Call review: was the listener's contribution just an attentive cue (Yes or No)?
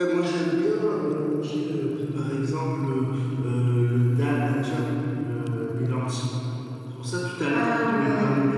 Yes